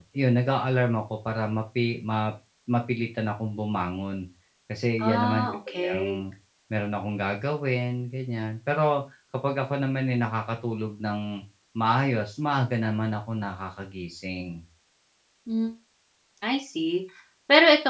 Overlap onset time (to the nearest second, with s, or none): 5 s